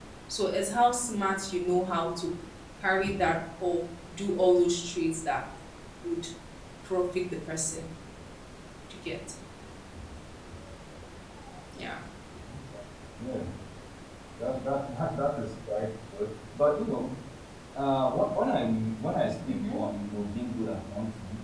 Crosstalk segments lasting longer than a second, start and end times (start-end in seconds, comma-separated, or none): none